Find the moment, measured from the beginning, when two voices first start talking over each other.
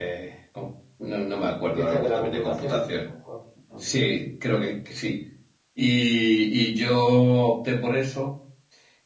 1.8 s

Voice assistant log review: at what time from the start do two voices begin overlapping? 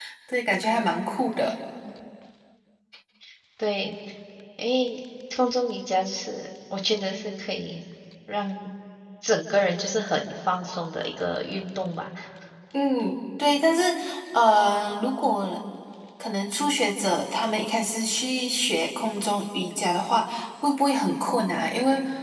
none

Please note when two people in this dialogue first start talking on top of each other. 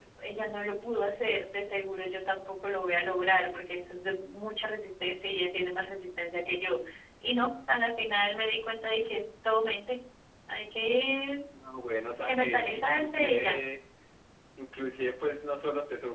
12.3 s

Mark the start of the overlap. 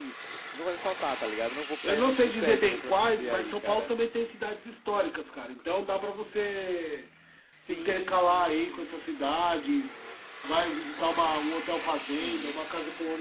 1.8 s

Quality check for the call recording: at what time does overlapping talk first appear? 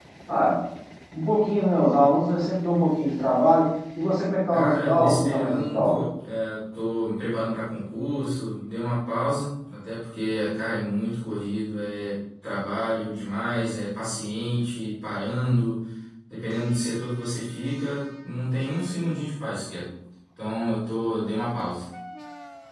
4.5 s

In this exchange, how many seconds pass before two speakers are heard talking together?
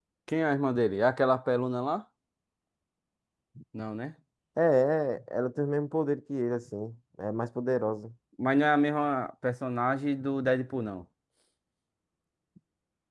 none

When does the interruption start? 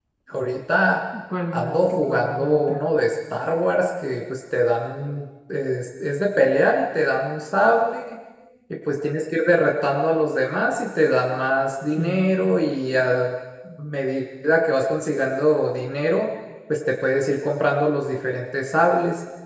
1.5 s

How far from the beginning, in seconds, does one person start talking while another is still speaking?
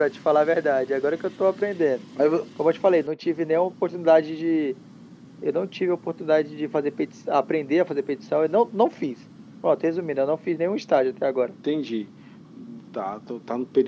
none

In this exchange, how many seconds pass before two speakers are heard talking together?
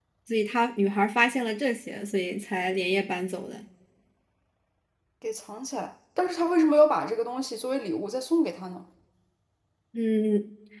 none

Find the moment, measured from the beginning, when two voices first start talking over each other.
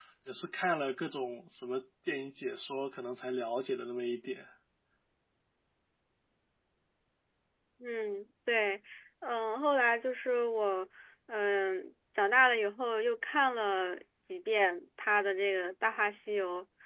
none

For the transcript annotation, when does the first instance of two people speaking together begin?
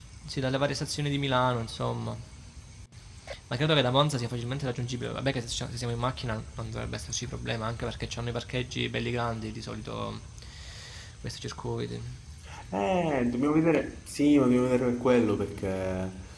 none

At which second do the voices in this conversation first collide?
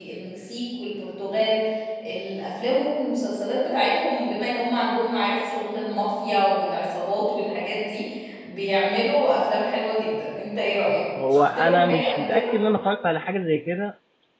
11.2 s

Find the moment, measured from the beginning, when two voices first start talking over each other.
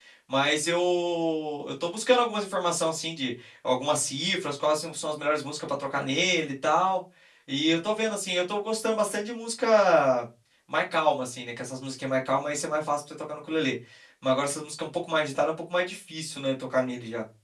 none

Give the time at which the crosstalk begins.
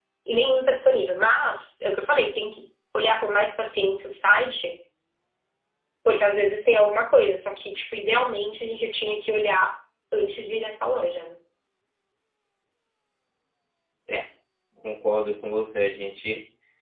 none

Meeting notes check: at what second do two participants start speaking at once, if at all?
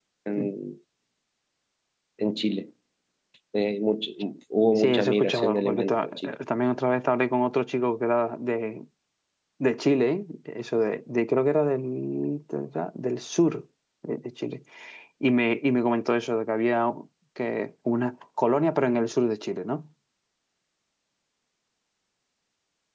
4.8 s

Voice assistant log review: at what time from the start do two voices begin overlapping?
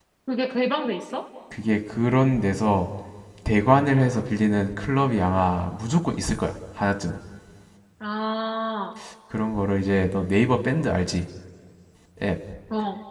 none

